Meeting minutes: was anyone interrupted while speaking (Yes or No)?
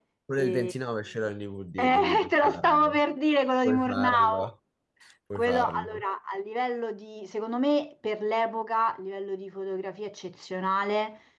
Yes